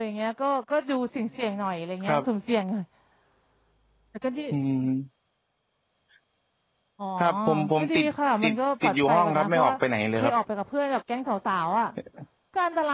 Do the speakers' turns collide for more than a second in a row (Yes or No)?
Yes